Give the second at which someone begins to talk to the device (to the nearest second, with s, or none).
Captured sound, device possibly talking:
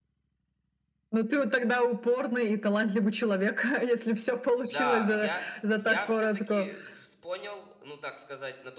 5 s